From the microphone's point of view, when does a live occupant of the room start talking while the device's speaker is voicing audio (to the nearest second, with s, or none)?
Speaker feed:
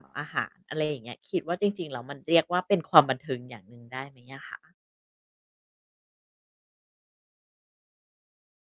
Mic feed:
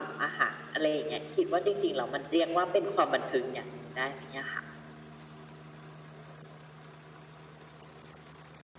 none